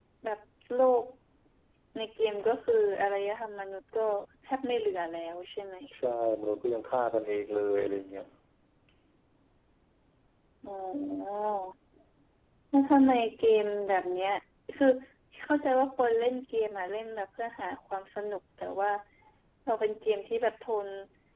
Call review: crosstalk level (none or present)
none